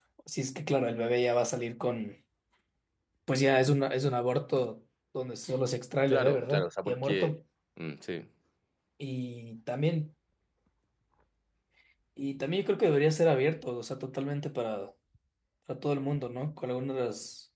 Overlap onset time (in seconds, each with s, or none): 6.1 s